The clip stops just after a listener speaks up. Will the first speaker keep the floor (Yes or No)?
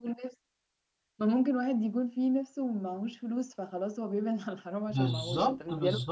No